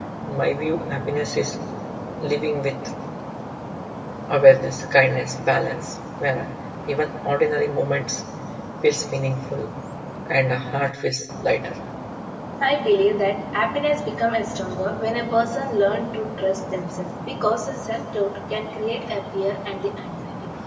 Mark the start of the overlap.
none

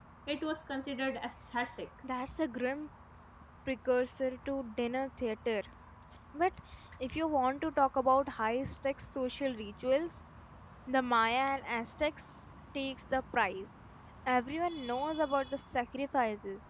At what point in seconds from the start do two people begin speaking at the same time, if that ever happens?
none

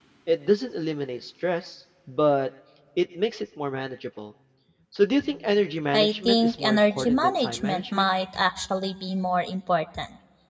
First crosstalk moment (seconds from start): 6 s

